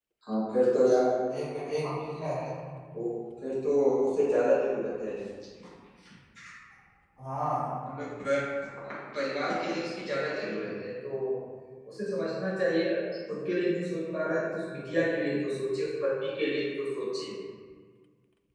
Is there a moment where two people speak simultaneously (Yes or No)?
No